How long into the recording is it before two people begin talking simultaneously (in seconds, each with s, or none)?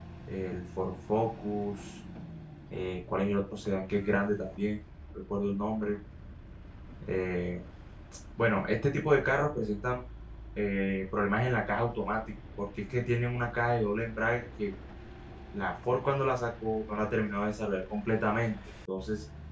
none